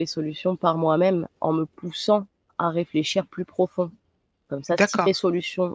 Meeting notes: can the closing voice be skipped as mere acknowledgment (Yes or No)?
Yes